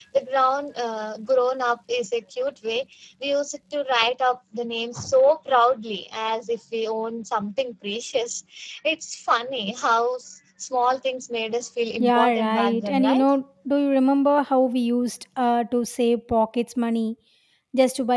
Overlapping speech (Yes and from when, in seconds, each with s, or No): Yes, from 12.0 s